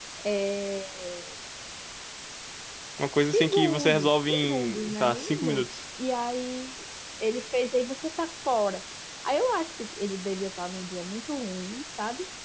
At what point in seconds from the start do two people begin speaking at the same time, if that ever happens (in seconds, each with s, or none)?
3.3 s